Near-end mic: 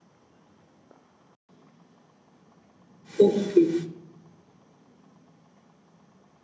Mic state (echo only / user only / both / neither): user only